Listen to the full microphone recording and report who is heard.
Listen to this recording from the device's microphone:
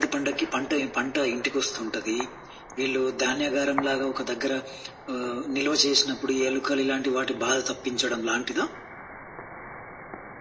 echo only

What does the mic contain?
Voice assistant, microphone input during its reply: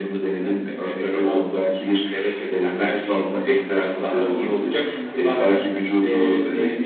echo only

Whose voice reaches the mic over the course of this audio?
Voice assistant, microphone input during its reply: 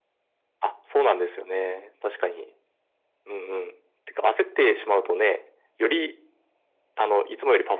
echo only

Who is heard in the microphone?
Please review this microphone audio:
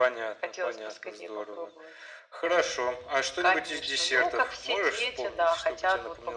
echo only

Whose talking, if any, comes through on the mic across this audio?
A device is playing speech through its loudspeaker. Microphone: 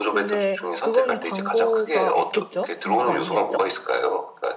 both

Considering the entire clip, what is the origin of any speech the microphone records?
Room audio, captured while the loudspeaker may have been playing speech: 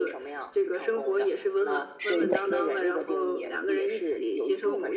both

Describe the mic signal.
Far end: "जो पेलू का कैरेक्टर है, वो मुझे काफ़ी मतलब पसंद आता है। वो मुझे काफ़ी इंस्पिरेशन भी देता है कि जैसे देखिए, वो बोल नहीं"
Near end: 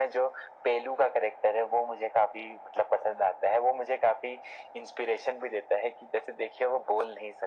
echo only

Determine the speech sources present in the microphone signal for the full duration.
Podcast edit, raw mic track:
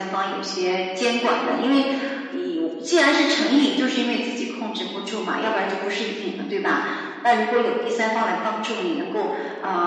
echo only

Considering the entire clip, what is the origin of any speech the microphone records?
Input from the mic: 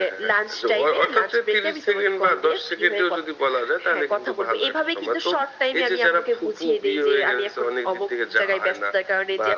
echo only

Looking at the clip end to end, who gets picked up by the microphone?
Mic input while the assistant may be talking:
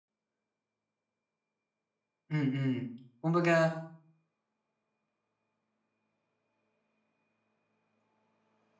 user only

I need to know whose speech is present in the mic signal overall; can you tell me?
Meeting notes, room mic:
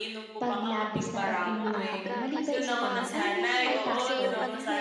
both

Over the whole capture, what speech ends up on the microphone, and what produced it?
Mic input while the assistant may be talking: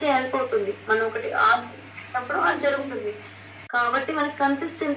echo only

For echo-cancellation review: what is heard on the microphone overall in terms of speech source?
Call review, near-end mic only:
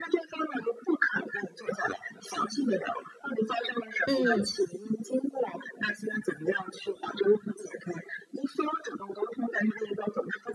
both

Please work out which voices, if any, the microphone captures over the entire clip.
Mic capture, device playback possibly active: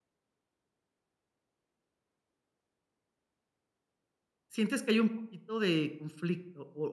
user only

